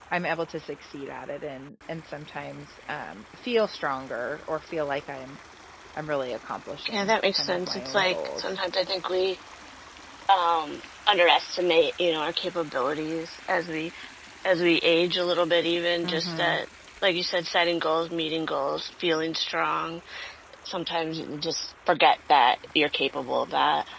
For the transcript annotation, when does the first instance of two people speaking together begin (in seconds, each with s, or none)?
6.9 s